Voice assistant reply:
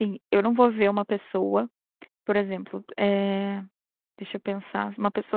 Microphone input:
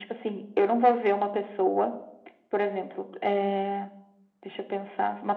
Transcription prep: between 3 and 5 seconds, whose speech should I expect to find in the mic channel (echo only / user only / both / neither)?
echo only